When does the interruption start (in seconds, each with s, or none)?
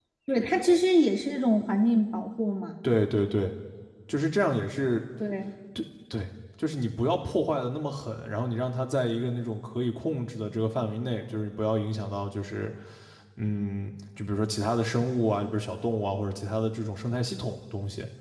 none